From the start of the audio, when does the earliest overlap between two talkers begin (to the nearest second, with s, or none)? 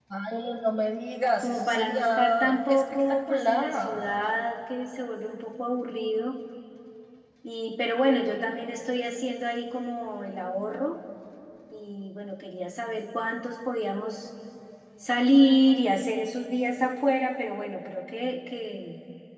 1 s